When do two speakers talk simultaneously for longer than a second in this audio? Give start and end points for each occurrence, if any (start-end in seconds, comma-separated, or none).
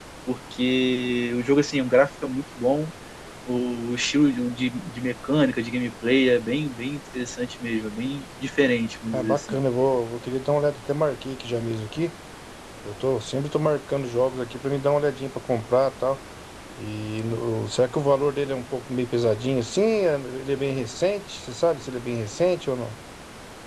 none